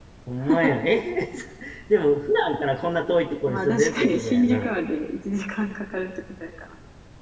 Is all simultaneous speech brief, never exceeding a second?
No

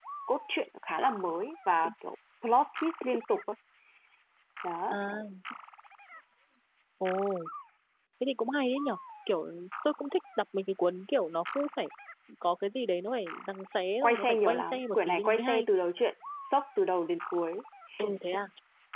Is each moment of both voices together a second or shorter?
No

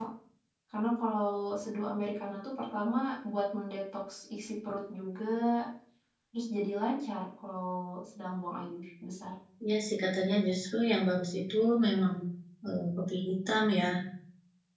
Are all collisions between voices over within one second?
Yes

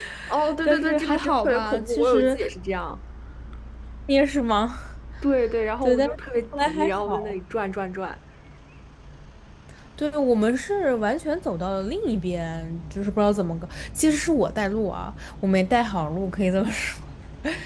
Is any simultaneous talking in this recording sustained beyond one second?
Yes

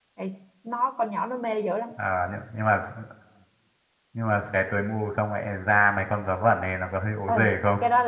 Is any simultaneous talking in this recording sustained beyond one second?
No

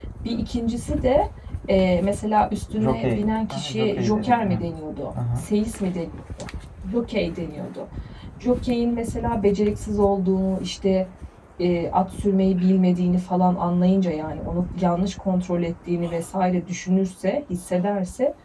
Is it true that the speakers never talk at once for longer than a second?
No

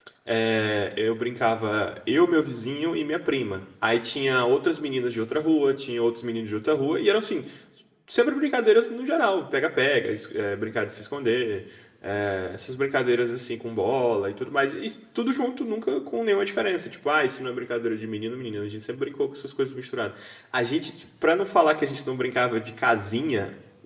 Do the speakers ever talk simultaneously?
No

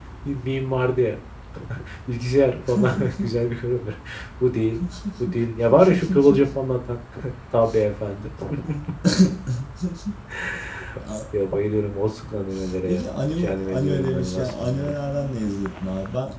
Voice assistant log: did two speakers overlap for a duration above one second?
Yes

